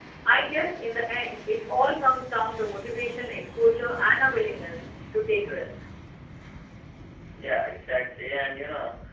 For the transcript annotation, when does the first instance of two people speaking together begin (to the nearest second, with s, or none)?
none